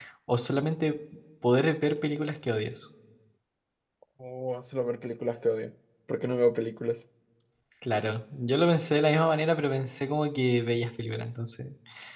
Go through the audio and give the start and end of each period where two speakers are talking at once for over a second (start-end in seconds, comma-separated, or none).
none